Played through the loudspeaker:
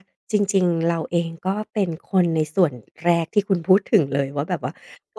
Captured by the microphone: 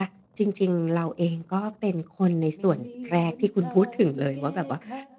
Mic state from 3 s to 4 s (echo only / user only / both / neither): both